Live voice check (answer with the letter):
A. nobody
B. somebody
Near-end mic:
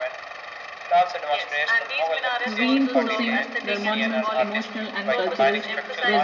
B